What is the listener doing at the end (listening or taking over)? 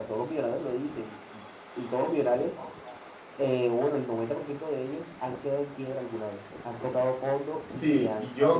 taking over